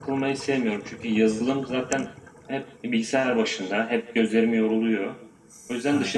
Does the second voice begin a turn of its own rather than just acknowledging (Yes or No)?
No